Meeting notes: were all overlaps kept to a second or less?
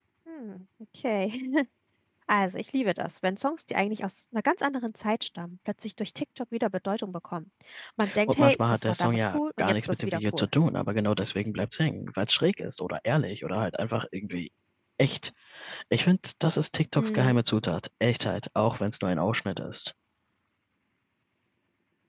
No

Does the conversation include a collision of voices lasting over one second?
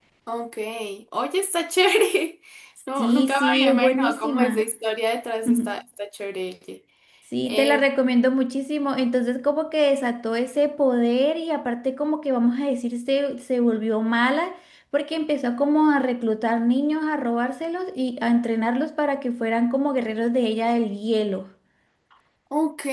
Yes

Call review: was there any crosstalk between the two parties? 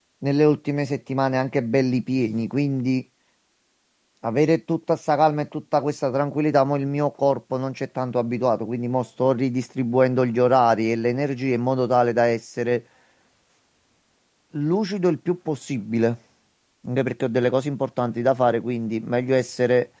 No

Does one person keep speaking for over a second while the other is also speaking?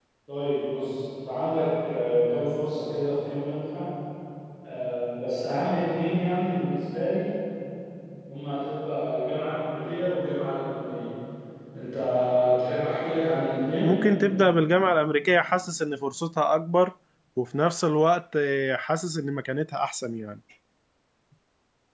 No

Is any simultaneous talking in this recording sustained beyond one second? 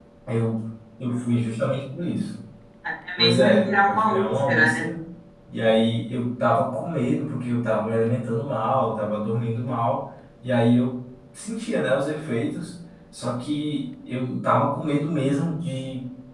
Yes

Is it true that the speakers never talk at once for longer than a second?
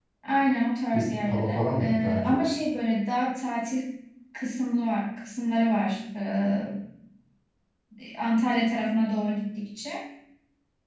No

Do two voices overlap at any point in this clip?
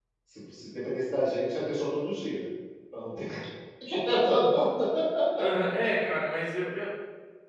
No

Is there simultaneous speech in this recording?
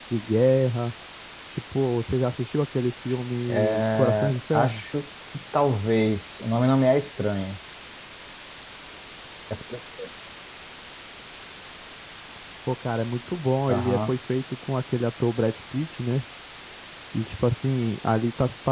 Yes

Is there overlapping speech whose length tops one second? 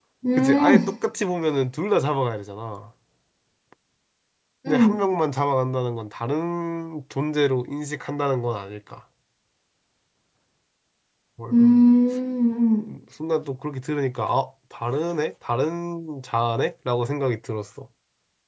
No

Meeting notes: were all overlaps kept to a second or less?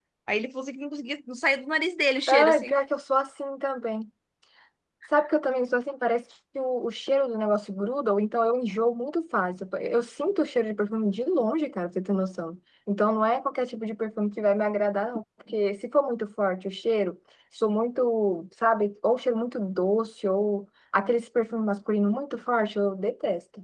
Yes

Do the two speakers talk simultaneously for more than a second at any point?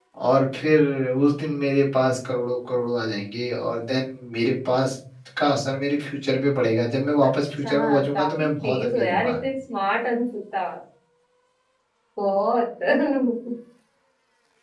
Yes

